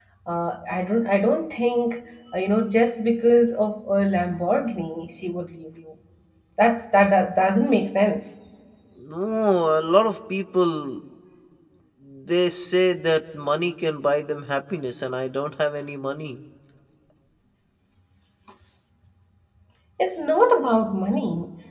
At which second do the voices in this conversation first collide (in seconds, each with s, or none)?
none